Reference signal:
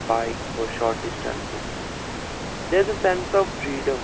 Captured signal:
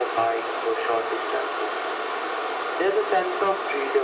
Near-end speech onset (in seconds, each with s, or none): none